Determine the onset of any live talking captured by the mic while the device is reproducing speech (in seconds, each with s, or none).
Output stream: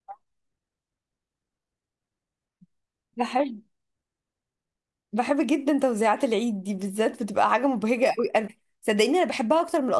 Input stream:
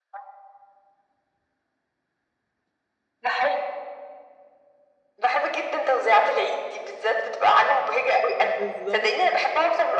8.4 s